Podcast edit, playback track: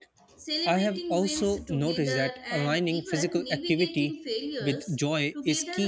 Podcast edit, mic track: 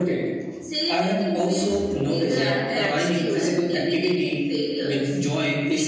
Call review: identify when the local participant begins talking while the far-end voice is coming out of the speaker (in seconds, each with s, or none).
2.2 s